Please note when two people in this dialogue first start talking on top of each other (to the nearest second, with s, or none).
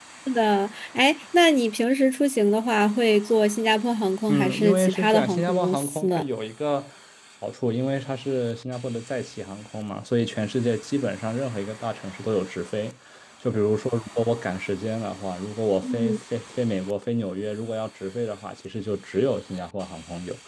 4 s